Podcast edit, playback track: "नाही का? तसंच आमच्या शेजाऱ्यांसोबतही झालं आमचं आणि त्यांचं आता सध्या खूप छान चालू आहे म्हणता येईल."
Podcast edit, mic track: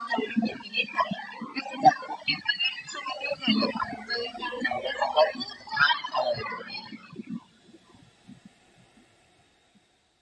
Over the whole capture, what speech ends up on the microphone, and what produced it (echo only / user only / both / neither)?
echo only